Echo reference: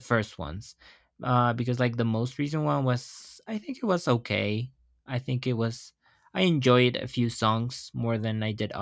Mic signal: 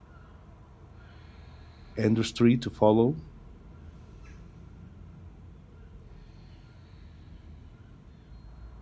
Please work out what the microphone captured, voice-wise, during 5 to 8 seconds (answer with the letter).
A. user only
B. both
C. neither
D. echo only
C